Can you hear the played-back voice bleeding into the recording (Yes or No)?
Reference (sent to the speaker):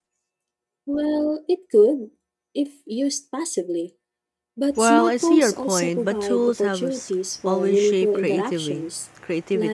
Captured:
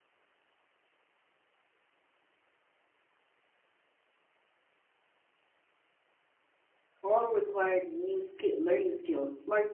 No